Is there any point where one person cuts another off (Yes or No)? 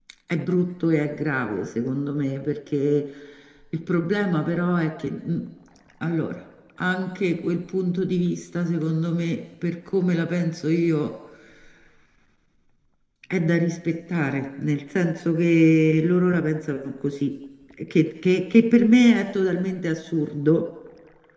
No